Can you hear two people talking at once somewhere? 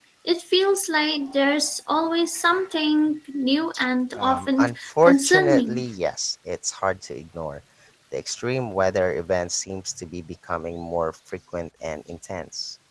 Yes, from 4.2 s

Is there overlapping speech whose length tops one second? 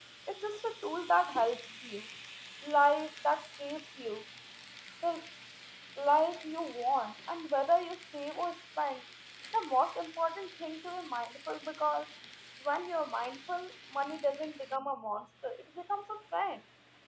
No

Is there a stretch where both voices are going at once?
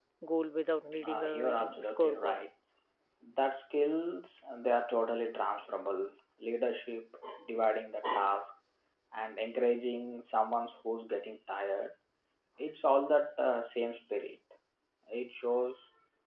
Yes, from 1.1 s

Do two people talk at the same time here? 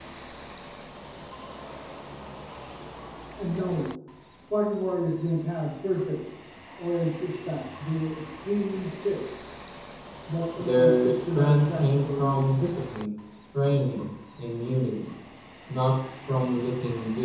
Yes, from 10.6 s

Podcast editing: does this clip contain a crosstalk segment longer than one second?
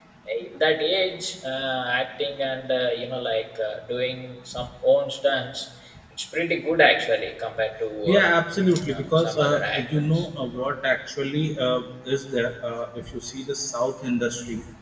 Yes, from 8.1 s

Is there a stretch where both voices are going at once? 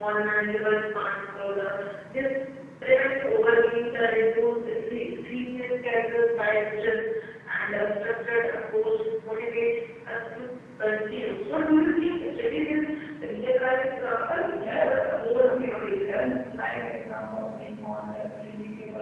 Yes, from 14.1 s

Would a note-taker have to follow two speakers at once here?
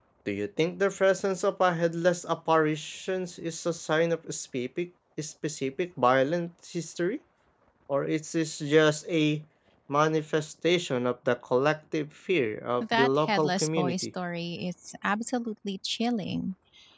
Yes, from 12.8 s

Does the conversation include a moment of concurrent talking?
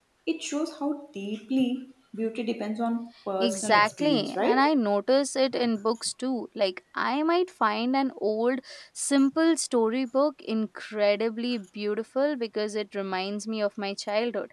Yes, from 3.4 s

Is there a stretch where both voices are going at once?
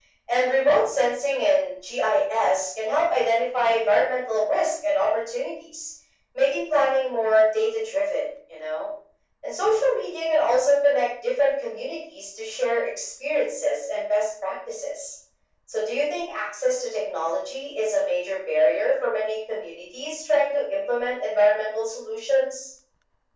No

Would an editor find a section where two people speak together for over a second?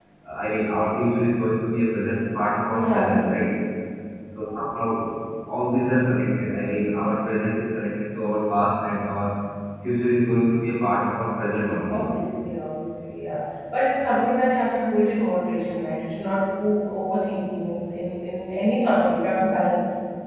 No

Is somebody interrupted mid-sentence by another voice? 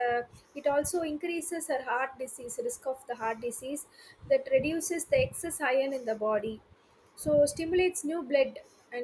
No

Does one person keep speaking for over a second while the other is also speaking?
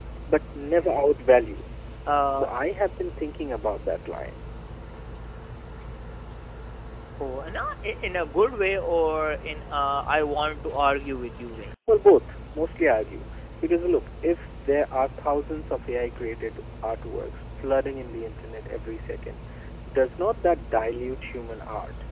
No

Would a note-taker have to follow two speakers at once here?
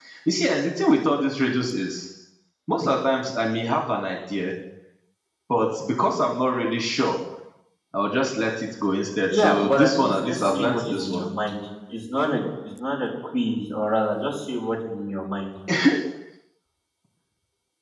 Yes, from 9.3 s

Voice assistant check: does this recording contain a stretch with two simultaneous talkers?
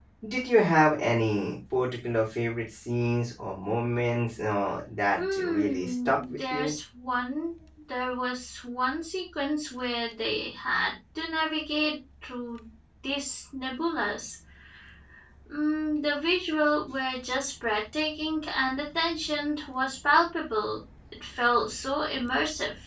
Yes, from 5.2 s

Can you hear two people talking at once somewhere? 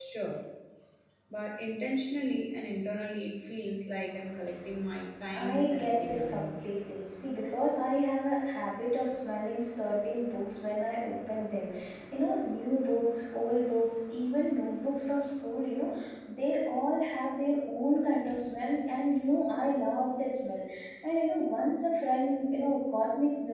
Yes, from 5.3 s

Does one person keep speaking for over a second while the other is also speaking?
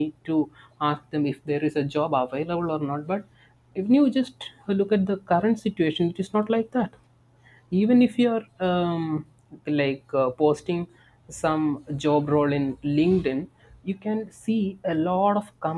No

